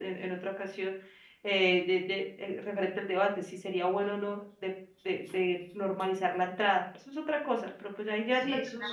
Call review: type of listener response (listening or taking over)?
taking over